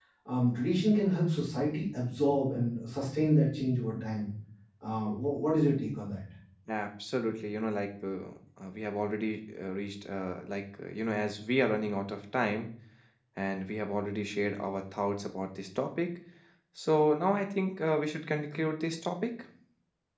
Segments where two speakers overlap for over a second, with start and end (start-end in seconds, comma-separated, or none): none